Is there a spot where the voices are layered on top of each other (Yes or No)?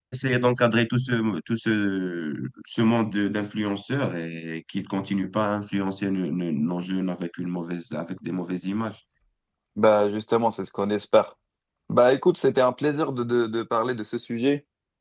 No